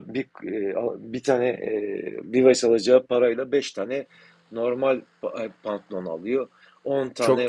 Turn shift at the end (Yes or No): No